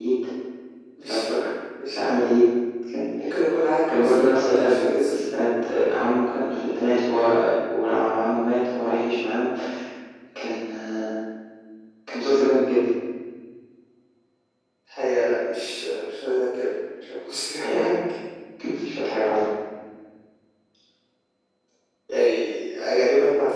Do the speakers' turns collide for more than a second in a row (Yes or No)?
Yes